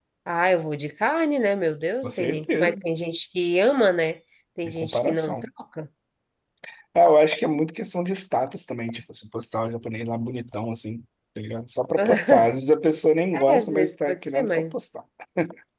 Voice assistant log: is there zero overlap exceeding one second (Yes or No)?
No